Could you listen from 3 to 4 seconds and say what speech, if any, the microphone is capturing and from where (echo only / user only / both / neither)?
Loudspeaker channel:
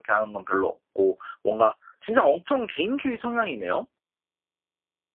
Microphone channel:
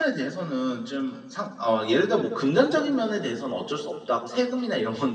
user only